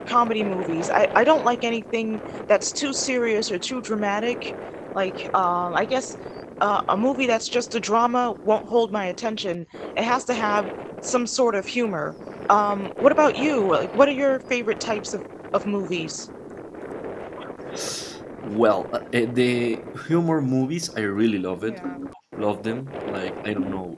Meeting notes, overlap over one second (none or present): none